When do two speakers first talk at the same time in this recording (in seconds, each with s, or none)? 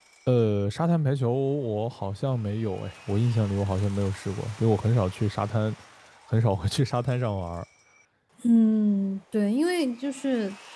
none